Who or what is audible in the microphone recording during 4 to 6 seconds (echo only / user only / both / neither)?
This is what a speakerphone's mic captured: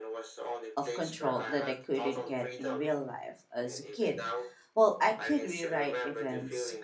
both